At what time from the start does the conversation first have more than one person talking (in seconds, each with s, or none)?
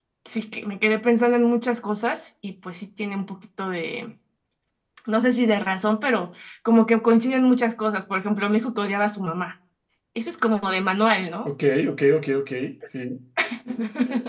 none